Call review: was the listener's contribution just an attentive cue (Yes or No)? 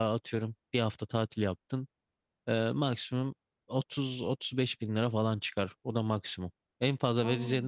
Yes